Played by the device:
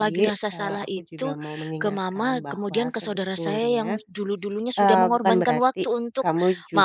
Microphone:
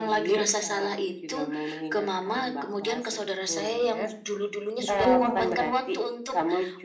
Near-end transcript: betul,

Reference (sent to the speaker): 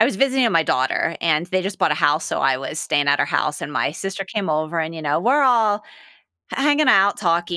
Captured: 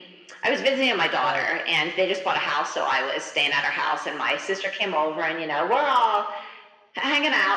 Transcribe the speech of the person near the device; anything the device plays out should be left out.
Right.

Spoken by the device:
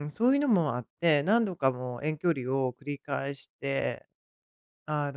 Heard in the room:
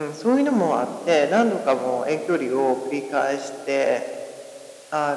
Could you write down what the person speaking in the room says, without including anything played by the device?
none

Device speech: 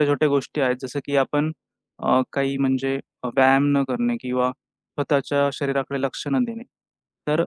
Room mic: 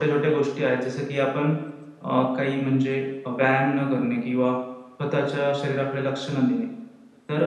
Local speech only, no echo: none

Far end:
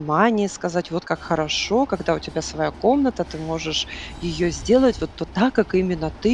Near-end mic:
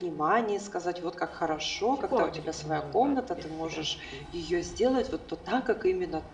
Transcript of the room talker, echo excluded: психологи рекомендуют, да, переселять детей.

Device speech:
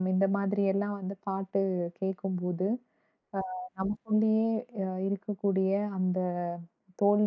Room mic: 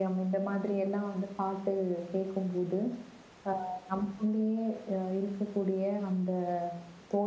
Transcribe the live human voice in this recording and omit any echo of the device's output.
none

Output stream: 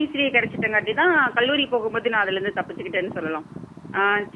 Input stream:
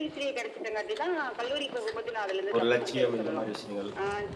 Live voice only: ஒரு லட்சியம் இந்த மாரி விஷயங்கள்.

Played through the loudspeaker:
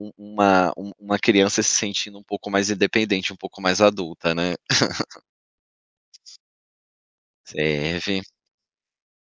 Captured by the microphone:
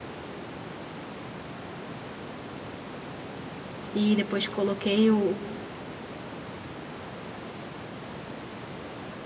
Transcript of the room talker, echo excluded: e depois coloquei o

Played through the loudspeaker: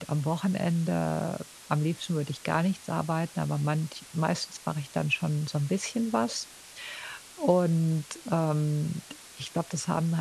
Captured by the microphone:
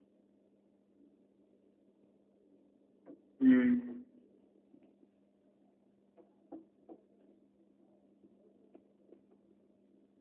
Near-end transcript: Mhm.

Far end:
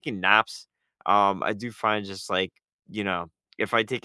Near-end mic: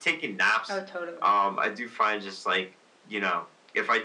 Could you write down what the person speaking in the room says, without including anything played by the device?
Oh, totally.

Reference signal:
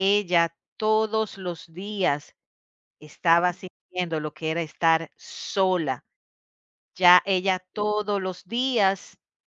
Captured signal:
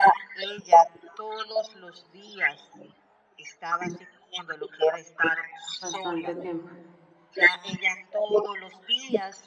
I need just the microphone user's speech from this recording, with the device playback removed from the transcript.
bastante tiempo.

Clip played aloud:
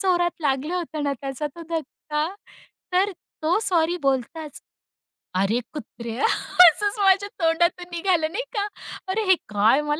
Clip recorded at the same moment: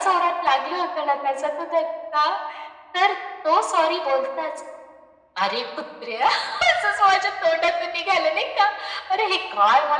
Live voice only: none

